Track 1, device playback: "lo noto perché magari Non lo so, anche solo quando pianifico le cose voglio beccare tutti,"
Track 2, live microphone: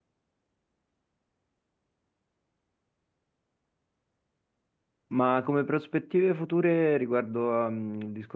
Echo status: none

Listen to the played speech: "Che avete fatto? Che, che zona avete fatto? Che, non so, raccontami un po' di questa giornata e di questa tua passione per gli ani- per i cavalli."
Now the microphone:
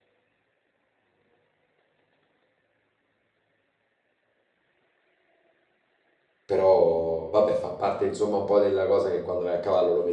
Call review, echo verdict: none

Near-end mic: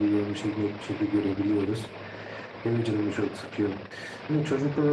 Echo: present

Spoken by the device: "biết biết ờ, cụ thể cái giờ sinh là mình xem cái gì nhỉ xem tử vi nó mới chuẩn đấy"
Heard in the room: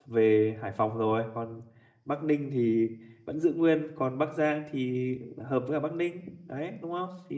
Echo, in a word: none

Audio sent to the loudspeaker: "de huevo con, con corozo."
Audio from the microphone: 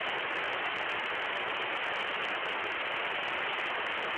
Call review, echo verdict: none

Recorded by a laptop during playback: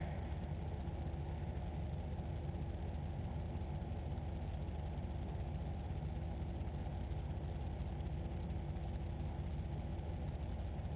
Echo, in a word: none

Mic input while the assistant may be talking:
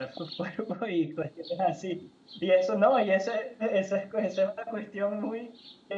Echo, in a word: none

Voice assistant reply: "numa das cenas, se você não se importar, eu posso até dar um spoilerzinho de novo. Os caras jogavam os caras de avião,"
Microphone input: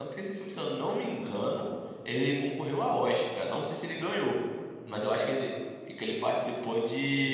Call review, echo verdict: none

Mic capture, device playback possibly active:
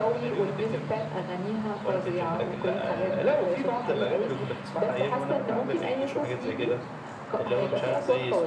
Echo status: present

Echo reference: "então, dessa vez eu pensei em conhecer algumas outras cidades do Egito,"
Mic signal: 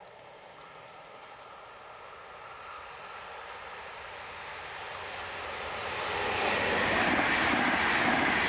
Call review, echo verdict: none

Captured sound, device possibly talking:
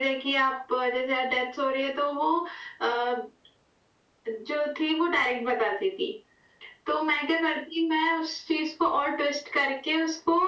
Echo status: present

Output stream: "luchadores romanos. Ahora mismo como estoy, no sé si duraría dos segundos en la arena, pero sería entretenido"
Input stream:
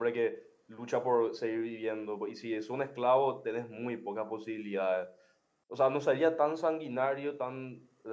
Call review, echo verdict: none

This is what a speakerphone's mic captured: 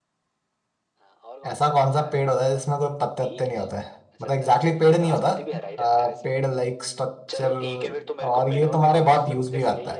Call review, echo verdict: present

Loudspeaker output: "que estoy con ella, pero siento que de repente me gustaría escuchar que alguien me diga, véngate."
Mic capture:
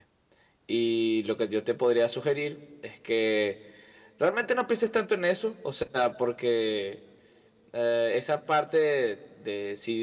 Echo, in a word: none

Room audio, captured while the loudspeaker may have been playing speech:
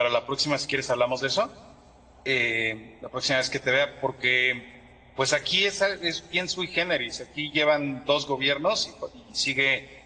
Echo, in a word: none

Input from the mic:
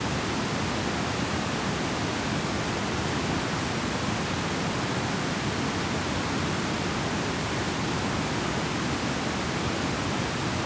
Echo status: none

